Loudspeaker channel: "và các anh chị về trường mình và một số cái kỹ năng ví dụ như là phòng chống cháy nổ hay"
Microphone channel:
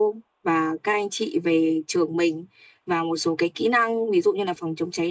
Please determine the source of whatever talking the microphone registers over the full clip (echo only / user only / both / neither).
echo only